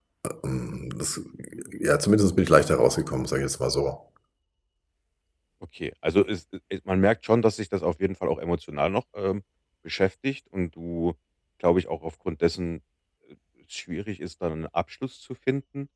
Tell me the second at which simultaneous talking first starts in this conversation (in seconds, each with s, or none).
none